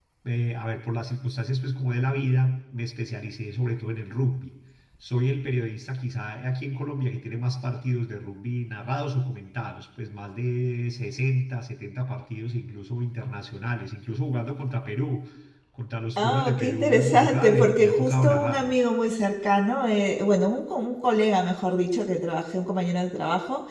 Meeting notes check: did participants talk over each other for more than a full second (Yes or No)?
Yes